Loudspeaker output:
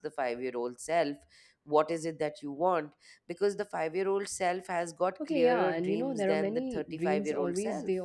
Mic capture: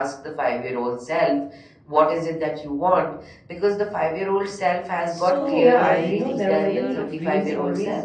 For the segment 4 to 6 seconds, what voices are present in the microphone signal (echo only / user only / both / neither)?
both